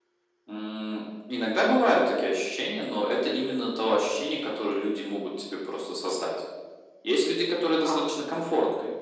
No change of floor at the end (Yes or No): Yes